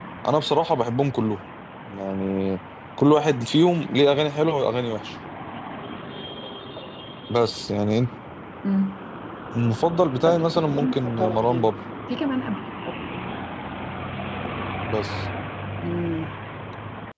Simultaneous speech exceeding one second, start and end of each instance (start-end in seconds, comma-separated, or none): 10.2-11.7